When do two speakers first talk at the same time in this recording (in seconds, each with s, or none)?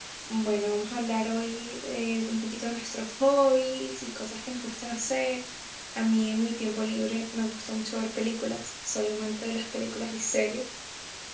none